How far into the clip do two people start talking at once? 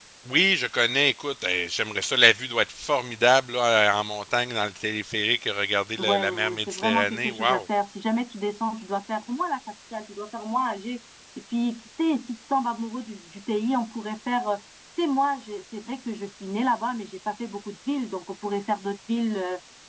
6.0 s

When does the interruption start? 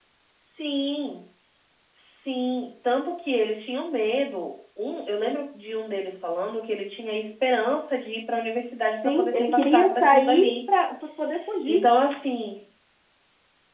9.0 s

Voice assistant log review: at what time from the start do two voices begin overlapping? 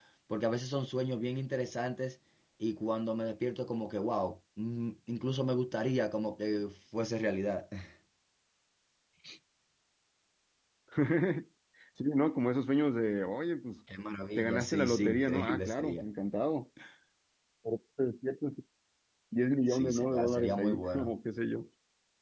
14.4 s

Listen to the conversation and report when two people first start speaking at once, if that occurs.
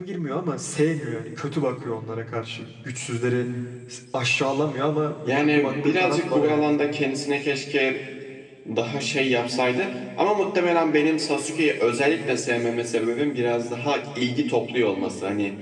5.2 s

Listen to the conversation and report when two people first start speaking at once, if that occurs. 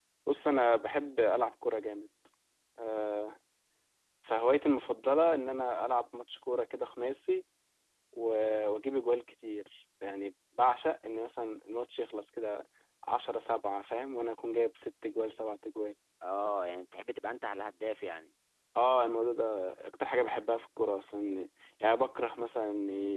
none

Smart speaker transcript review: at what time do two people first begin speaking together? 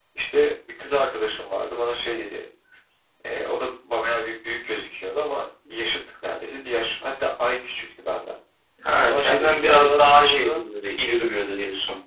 9.1 s

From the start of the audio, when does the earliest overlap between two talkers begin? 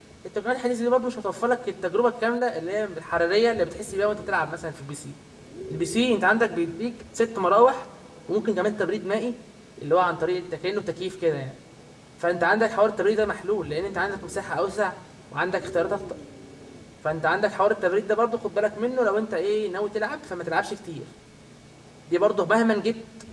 none

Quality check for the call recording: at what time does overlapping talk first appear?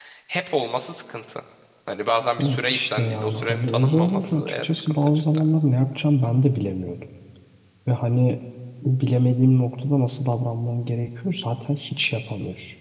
2.4 s

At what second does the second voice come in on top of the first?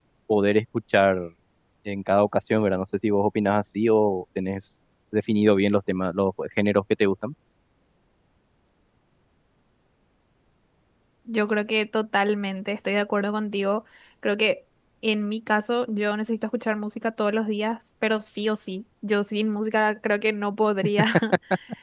none

